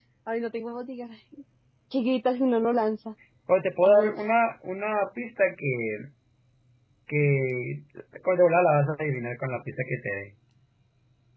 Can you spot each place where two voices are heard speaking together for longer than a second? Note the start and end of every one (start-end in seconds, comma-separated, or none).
none